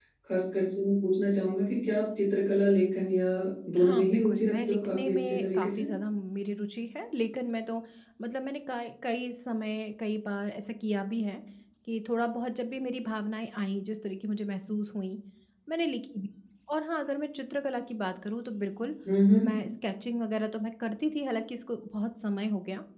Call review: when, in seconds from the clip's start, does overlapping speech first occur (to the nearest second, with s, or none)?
4 s